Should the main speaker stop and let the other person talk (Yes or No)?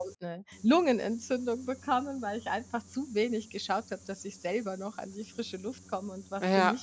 Yes